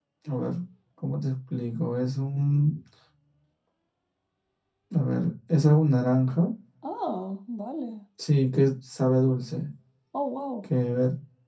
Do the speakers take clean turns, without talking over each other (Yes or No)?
Yes